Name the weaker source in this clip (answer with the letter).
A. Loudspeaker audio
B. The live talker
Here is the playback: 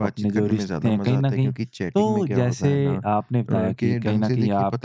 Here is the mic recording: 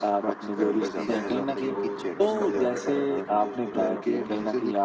B